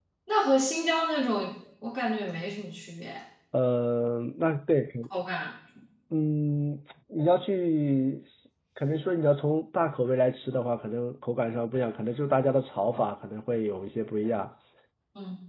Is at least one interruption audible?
No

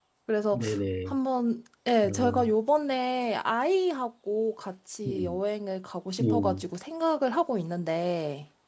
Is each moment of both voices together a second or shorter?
Yes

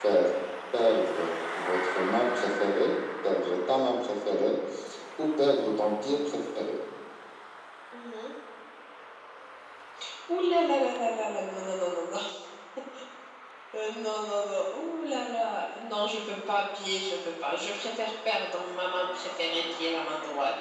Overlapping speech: No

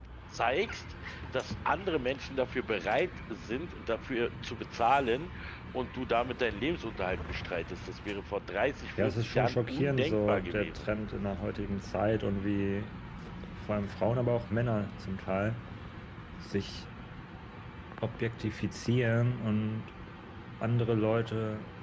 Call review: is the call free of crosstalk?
No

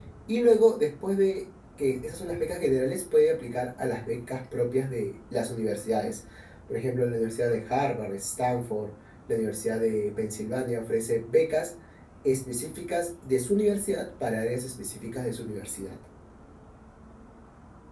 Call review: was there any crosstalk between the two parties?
No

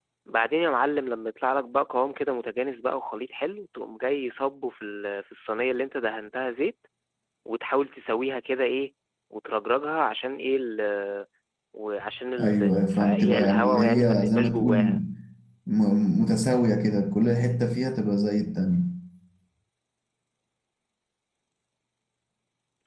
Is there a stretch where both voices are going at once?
Yes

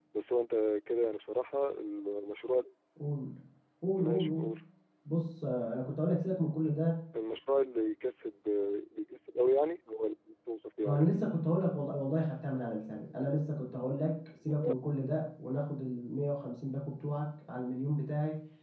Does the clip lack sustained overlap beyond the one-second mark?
Yes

